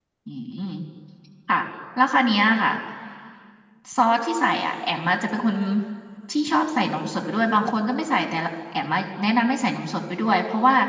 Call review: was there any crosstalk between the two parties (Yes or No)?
No